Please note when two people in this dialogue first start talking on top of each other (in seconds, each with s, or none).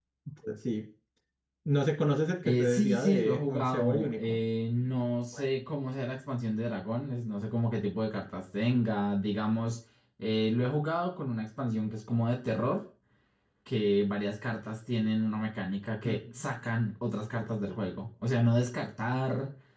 2.4 s